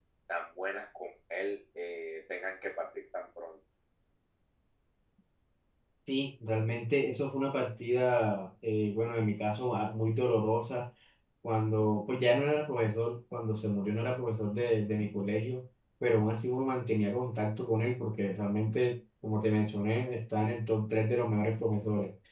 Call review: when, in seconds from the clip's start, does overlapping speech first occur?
none

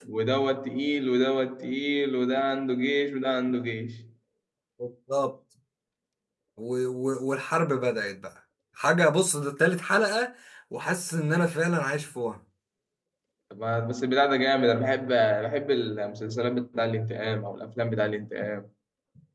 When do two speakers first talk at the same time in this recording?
none

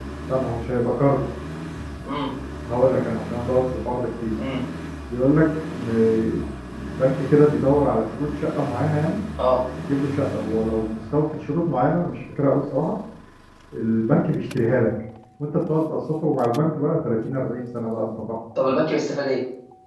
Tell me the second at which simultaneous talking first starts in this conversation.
none

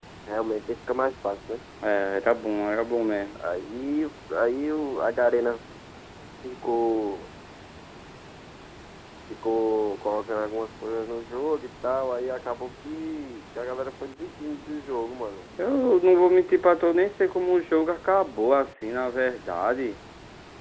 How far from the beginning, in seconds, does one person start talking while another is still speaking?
none

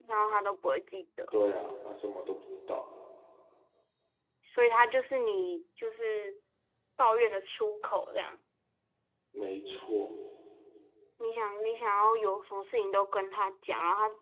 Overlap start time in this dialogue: none

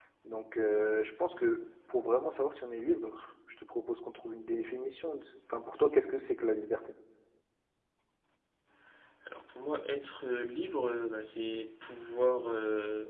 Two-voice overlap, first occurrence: none

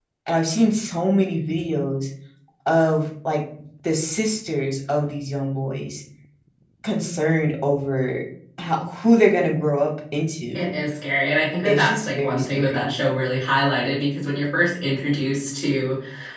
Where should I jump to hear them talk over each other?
11.6 s

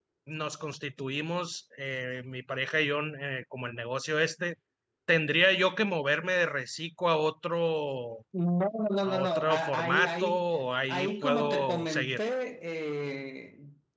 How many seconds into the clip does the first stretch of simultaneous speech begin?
9.0 s

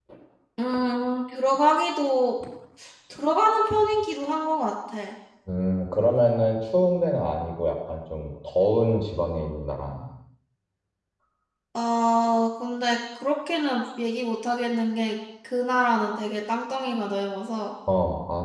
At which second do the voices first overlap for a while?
none

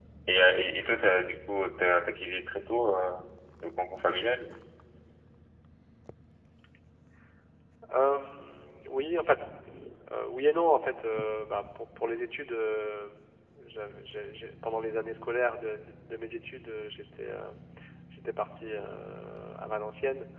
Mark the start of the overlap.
none

